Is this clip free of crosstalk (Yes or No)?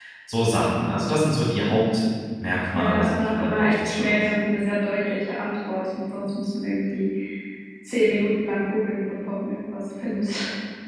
No